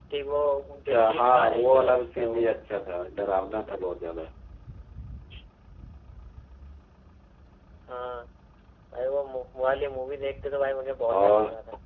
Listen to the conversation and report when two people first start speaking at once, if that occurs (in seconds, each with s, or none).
0.8 s